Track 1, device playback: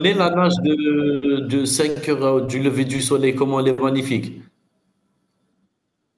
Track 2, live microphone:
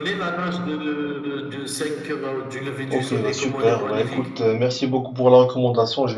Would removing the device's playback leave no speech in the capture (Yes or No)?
No